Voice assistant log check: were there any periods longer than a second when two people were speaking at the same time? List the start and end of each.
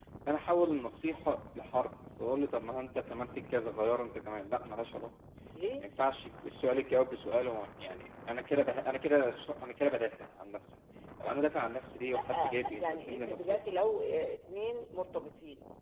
12.1-13.6

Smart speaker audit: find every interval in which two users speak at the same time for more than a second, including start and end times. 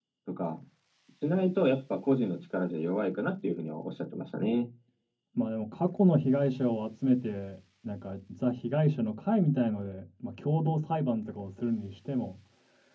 none

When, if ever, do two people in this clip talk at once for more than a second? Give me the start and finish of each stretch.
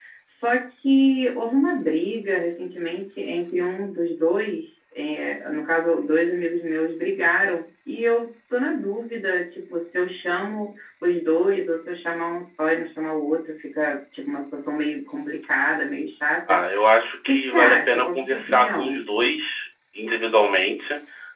17.2-19.0

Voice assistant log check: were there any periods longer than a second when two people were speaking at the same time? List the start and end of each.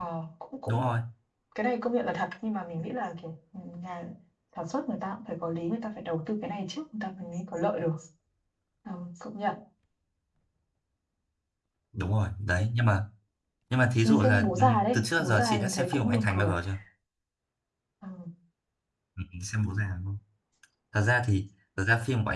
14.1-16.6

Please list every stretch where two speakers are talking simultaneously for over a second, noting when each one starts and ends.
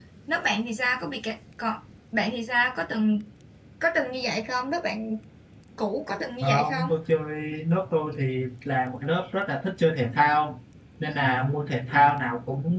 none

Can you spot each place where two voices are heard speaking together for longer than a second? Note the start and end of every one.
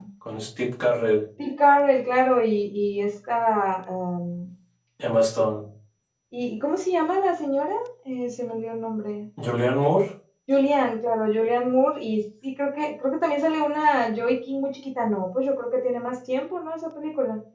none

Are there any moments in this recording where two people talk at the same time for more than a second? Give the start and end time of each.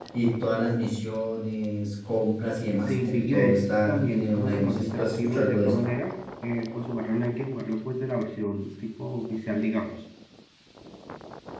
2.9-5.7

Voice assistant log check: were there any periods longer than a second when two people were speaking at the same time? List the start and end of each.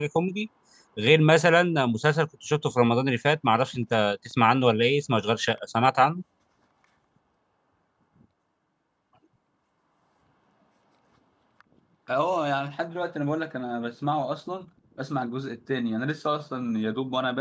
none

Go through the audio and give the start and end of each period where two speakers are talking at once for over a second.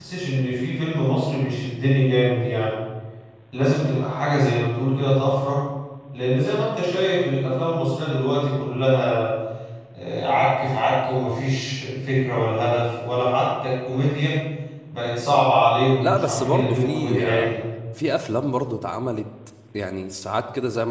16.0-17.5

